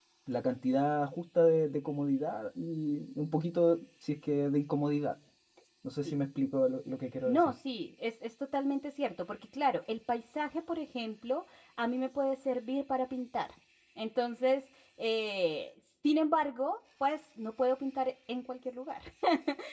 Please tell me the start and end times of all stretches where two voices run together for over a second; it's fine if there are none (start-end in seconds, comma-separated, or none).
none